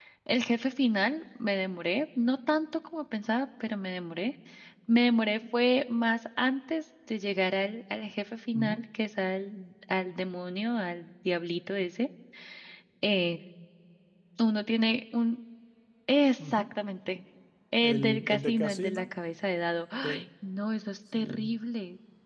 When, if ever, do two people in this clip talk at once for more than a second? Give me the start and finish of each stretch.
17.8-19.1

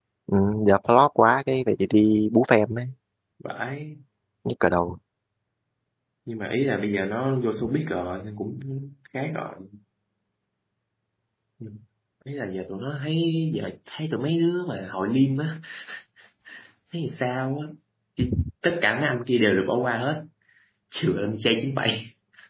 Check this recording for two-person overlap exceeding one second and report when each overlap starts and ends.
none

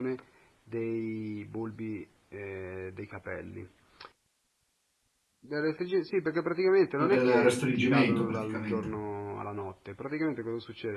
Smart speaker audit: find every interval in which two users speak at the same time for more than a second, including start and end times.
7.0-8.9

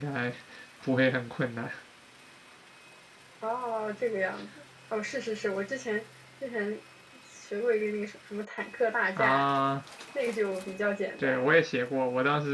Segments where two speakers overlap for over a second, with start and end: none

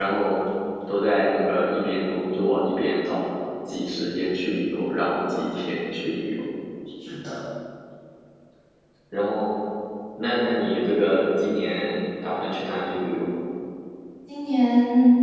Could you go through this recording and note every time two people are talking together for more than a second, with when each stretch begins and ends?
none

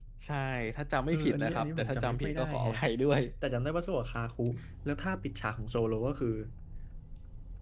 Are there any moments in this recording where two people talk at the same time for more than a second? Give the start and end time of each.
1.1-2.7

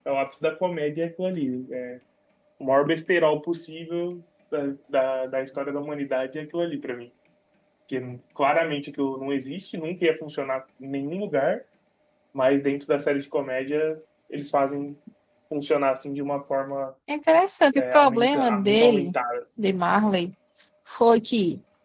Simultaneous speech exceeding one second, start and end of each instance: 17.7-19.1

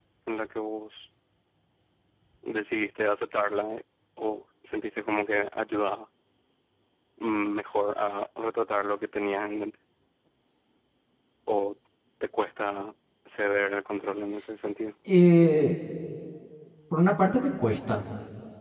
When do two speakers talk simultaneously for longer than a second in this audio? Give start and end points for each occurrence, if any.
none

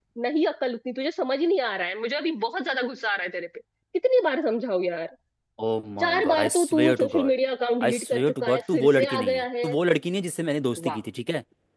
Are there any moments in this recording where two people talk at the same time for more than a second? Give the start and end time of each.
6.0-7.3, 7.8-9.7

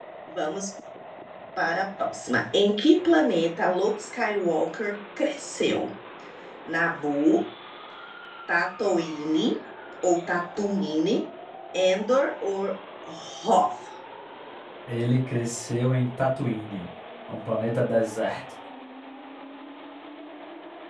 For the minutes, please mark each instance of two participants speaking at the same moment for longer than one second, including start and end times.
none

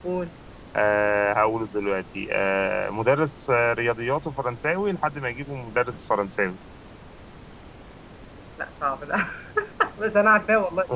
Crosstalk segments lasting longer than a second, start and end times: none

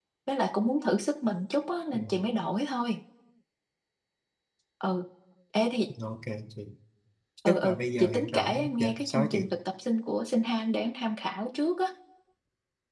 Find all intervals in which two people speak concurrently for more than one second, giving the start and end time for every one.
7.5-9.4

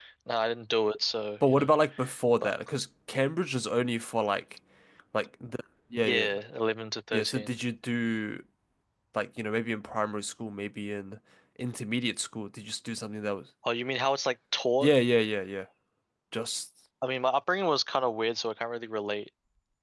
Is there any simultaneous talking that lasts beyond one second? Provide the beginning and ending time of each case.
none

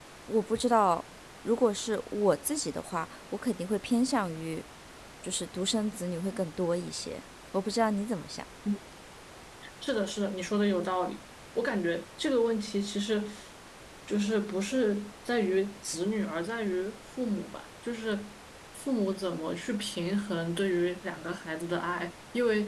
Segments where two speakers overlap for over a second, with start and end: none

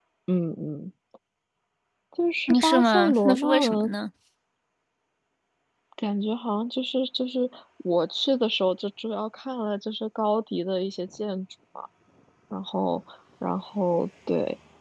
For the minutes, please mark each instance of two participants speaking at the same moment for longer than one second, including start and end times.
2.5-3.9

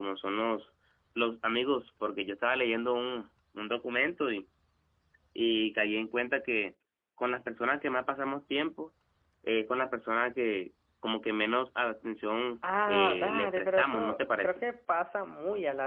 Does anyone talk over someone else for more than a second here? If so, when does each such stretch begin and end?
12.9-14.6

